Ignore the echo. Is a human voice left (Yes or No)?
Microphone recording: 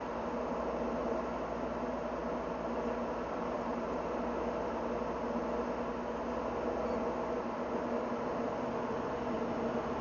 No